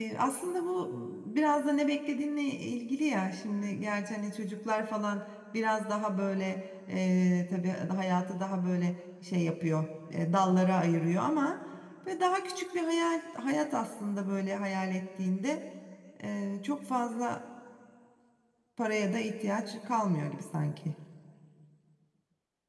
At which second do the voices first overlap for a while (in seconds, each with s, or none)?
none